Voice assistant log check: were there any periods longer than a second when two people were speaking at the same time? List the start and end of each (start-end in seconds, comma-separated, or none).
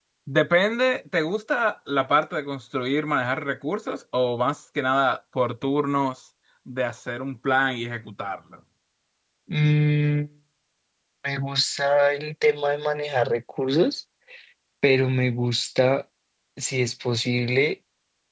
none